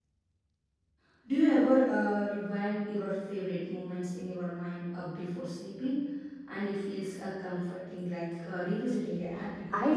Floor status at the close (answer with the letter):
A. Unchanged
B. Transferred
B